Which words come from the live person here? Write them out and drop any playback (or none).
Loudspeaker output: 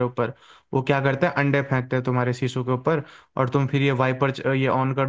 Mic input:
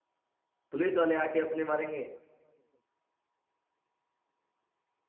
पुलिस वाले आके अपने मारेंगे